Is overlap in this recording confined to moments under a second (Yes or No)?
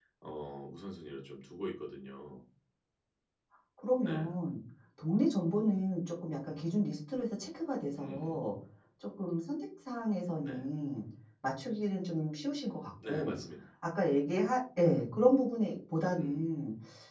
Yes